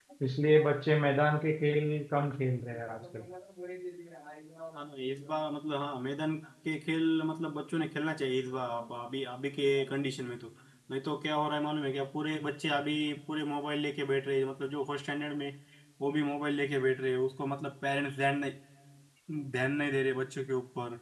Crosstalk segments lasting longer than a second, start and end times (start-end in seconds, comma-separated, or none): none